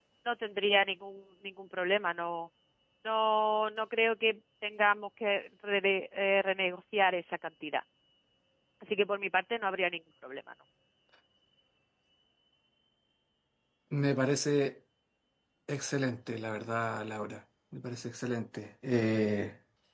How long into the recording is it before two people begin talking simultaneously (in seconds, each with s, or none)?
none